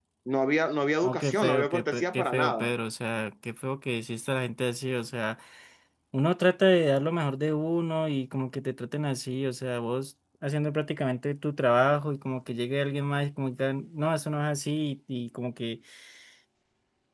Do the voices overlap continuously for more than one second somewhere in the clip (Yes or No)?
Yes